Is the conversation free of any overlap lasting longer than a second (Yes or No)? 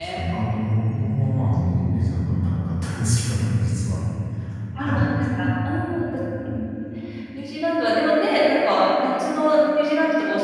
Yes